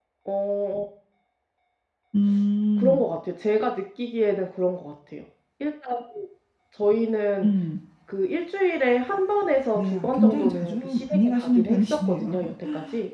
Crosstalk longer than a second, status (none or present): present